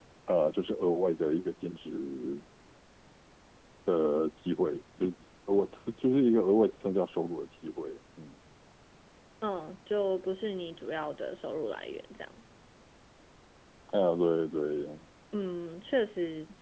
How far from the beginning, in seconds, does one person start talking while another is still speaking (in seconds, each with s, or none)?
none